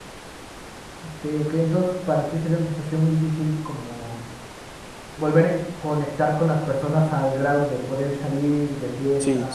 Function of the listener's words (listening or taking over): taking over